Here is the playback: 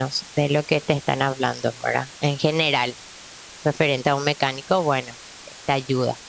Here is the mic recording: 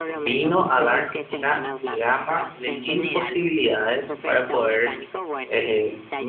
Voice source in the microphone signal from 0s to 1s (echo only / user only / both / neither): both